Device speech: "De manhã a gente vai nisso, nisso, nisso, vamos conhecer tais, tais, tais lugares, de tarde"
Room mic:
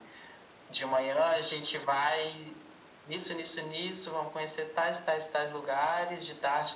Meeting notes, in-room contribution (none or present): none